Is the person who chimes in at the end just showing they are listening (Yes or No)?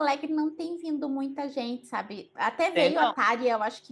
Yes